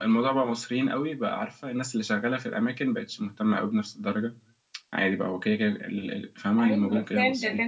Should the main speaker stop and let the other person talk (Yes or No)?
Yes